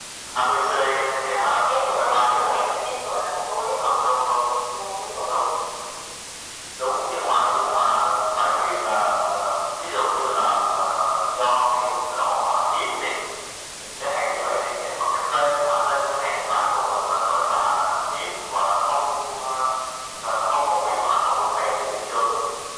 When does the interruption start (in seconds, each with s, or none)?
1.3 s